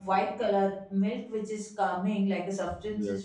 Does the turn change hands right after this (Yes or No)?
No